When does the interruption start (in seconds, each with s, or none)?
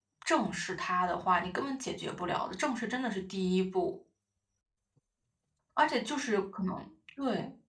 none